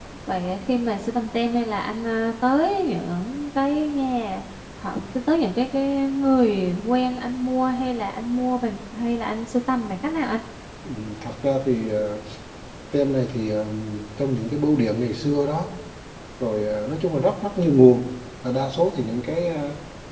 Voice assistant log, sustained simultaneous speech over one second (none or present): none